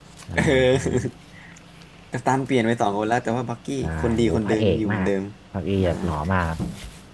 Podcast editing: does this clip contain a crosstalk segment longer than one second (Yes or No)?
Yes